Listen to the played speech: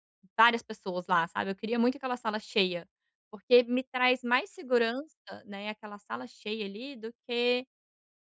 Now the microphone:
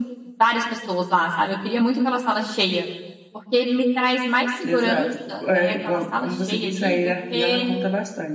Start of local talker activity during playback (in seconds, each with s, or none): 4.6 s